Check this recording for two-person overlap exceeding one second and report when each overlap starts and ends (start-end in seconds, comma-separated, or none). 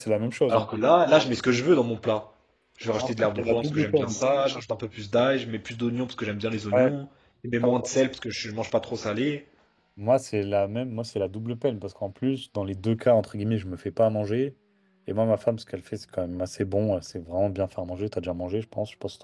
3.0-4.2